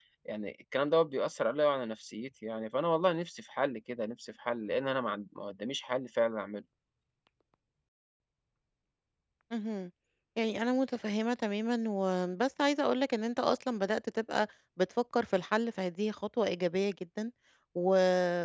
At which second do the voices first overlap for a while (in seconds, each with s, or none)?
none